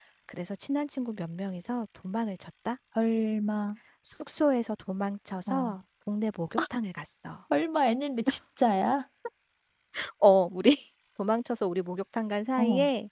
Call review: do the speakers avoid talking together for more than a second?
Yes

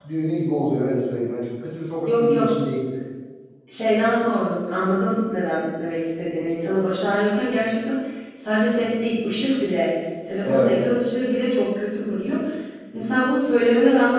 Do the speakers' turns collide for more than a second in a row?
No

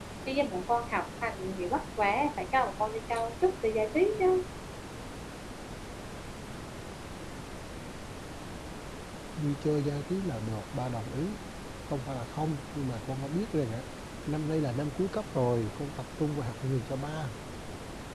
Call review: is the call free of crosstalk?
Yes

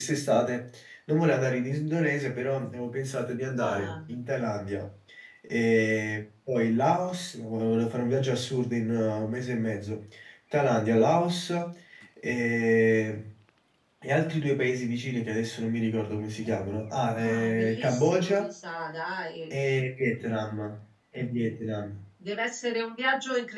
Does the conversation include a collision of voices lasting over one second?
Yes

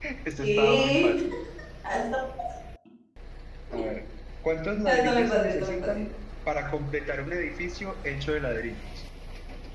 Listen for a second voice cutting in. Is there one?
Yes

